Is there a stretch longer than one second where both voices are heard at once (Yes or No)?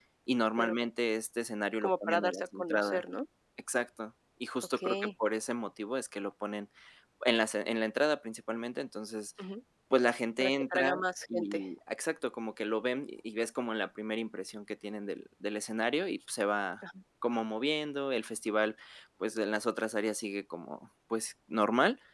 Yes